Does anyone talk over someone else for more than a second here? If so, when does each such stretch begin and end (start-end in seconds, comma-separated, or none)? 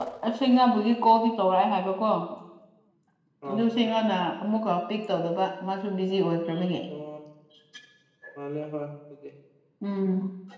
none